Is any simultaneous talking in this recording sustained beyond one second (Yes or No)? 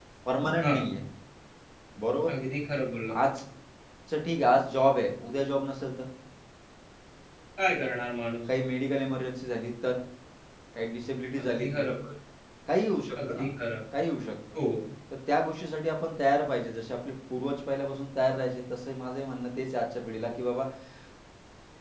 No